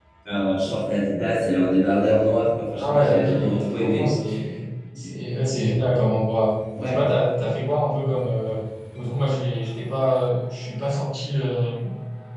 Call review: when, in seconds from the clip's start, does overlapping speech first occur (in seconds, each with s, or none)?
2.8 s